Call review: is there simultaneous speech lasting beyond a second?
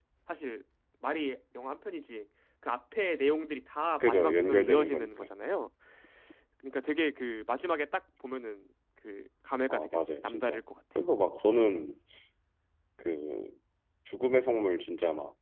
Yes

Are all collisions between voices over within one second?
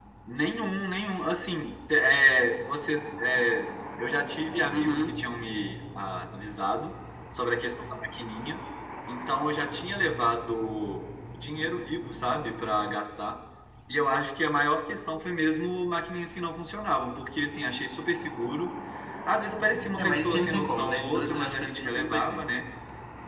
No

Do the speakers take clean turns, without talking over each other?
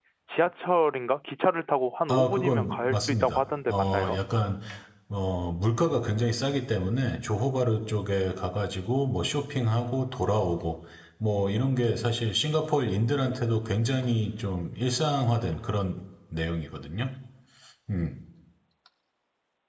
No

